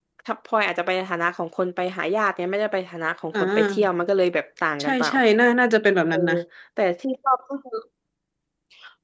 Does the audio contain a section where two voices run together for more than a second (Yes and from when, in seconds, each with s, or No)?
No